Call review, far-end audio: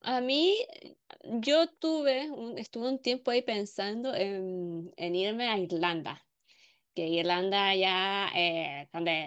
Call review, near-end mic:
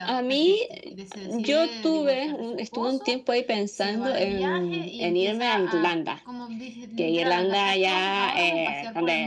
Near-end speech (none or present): present